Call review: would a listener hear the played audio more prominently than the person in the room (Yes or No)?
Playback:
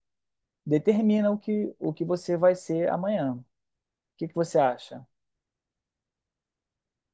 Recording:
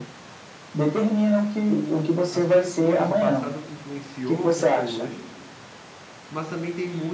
Yes